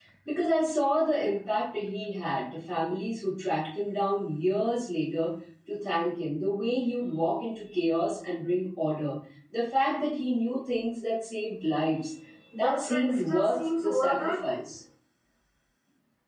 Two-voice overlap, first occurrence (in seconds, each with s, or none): 12.6 s